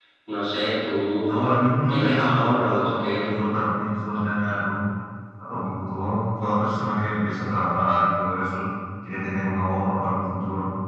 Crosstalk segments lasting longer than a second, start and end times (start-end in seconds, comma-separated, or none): 1.9-3.3